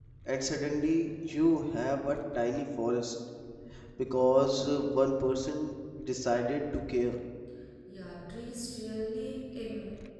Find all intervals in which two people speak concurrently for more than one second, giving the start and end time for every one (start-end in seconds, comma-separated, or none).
none